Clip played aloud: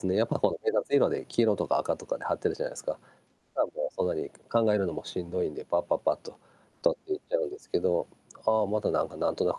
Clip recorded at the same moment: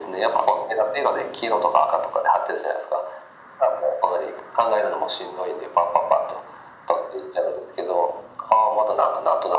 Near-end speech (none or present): none